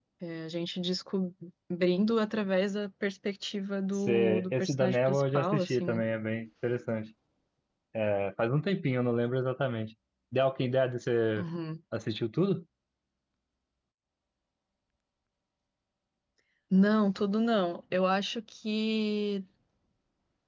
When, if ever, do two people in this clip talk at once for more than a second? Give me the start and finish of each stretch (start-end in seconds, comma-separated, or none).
3.9-6.0